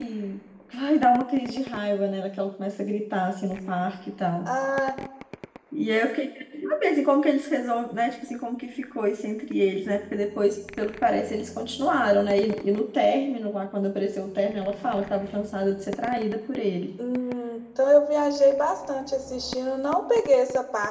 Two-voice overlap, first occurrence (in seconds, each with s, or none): none